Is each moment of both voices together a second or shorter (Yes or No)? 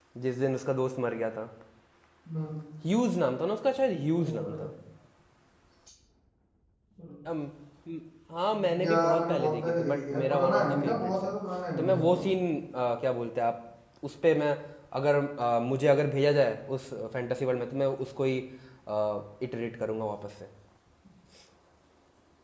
No